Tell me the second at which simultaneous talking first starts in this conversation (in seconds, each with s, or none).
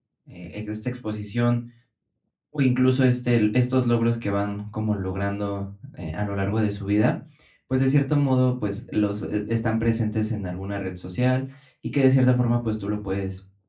none